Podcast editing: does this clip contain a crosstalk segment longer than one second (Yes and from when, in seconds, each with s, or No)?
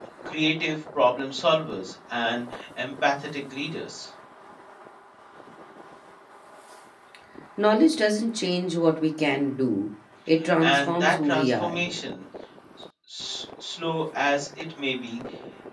Yes, from 10.4 s